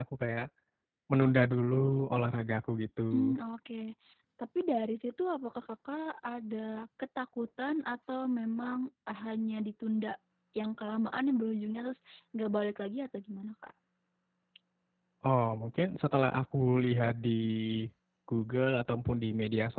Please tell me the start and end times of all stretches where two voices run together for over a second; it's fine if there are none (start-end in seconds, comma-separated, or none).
none